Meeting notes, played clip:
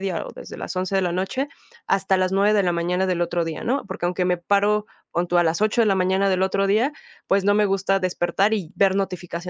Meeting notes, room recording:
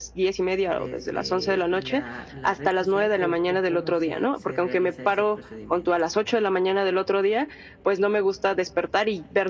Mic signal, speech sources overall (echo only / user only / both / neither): both